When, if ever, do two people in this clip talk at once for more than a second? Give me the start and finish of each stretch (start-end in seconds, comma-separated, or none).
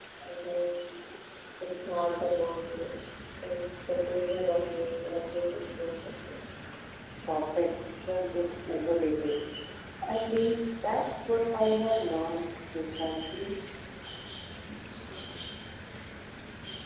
none